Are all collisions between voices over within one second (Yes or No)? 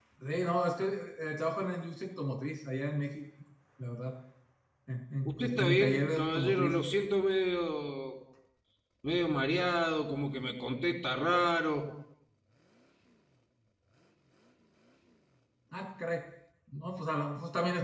No